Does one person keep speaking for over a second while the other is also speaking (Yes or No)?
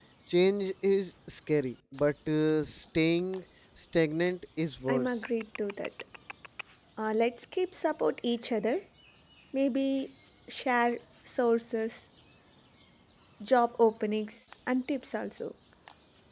No